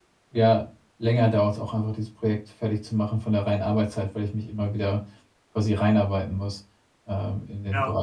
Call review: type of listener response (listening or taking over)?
taking over